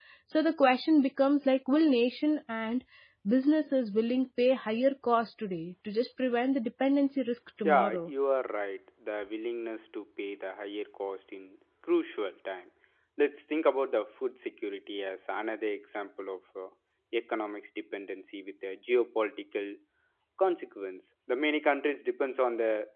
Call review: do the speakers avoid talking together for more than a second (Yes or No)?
Yes